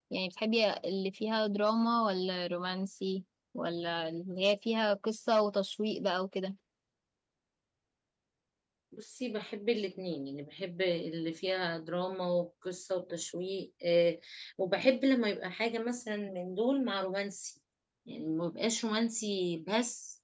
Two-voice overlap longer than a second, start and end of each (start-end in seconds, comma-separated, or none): none